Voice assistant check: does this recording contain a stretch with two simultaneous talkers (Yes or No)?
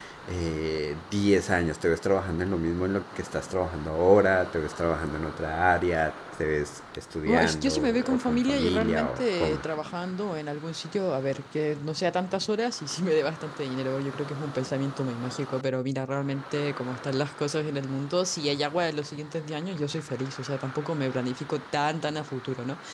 Yes